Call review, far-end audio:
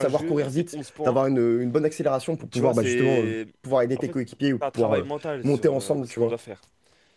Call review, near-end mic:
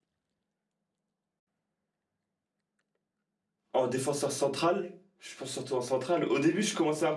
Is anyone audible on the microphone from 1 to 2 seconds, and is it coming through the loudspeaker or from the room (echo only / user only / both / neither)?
neither